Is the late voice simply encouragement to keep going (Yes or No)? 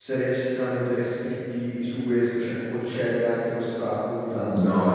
No